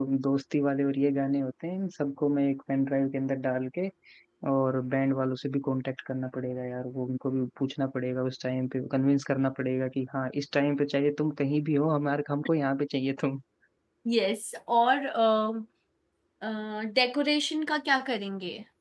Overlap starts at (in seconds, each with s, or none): none